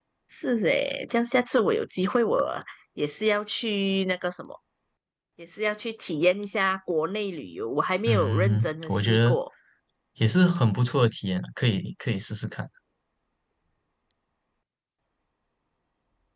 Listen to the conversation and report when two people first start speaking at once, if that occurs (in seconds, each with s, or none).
8.0 s